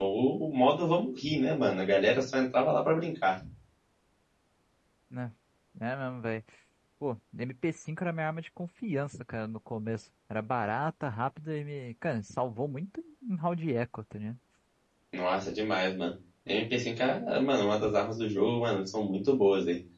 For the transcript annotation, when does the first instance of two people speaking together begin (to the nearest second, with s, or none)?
none